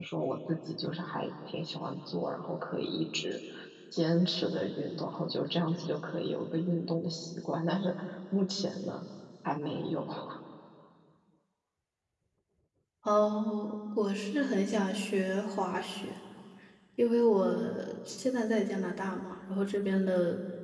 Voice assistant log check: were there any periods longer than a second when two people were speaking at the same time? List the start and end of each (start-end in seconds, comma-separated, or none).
none